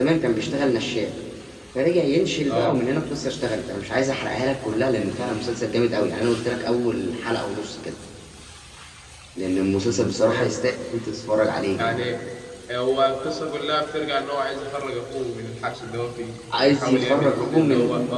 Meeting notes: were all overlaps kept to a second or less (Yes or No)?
No